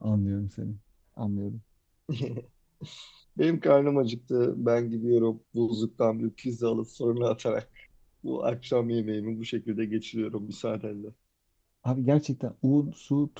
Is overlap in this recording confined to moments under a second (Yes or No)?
Yes